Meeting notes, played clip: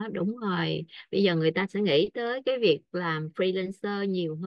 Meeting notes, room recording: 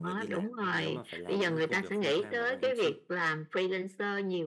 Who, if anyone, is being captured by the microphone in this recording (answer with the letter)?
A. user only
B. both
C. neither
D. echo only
B